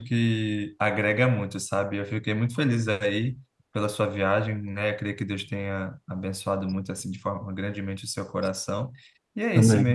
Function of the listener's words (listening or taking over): listening